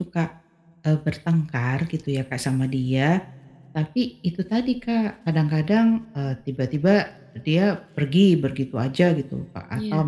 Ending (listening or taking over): listening